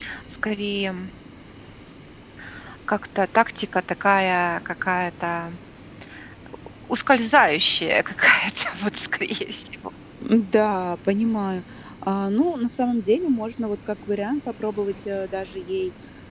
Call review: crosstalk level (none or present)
none